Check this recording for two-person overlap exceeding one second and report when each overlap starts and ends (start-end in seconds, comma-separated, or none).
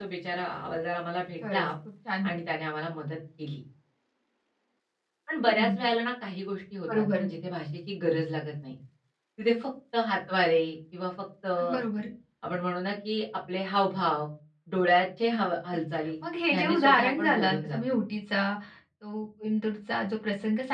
16.5-17.8